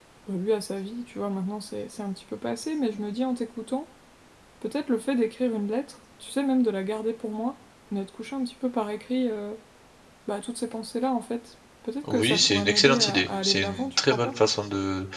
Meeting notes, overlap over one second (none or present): present